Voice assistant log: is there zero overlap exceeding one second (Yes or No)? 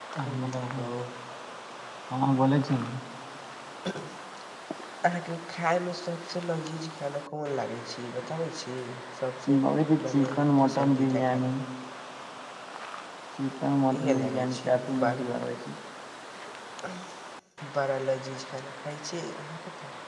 No